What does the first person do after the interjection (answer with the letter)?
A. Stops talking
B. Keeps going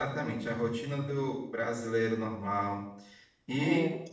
B